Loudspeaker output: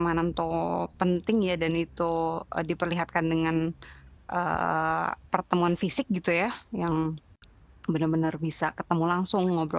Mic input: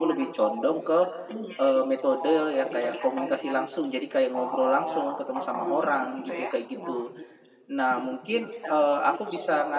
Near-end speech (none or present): present